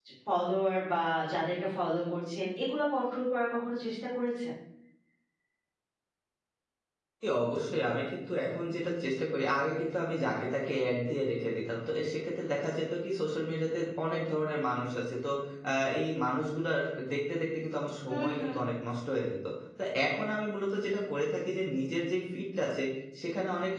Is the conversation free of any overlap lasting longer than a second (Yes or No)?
Yes